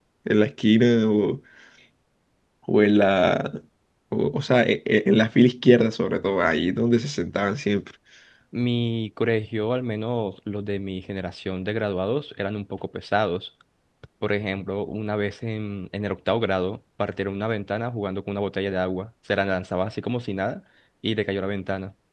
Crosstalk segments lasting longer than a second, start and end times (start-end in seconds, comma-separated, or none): none